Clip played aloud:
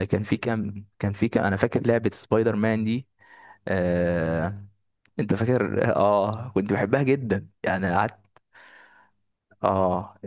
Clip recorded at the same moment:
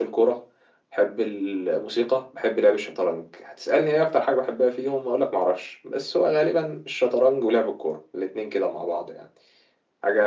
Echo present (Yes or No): No